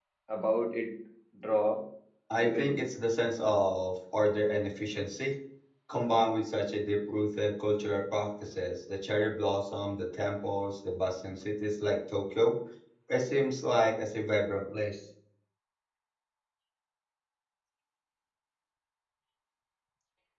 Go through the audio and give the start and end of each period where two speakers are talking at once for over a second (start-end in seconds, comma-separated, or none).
none